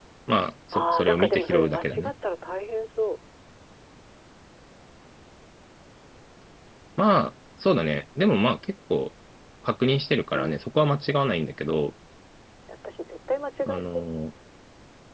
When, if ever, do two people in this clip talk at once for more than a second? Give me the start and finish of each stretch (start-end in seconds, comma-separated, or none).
0.7-2.1